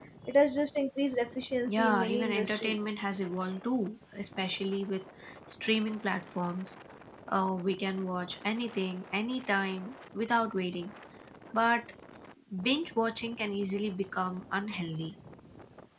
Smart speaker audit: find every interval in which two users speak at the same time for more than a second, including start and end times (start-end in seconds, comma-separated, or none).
1.7-2.9